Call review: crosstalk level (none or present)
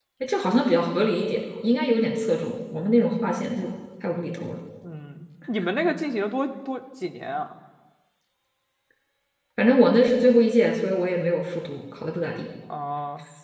none